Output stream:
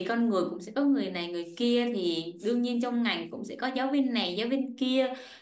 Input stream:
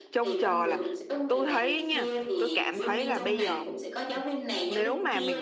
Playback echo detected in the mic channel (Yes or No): Yes